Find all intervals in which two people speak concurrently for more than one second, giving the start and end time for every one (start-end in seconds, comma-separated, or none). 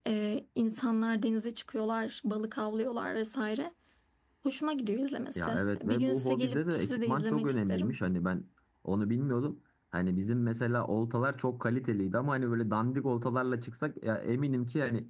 5.3-8.0